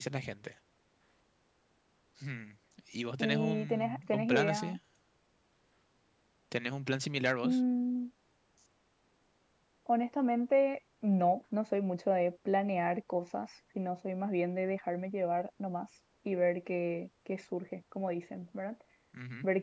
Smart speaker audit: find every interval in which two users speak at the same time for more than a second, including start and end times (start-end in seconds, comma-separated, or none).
3.2-4.8